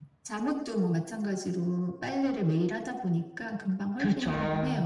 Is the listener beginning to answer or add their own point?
Yes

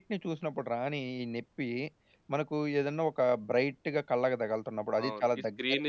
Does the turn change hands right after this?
Yes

